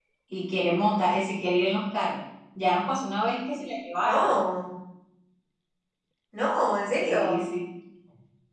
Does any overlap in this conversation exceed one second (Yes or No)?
No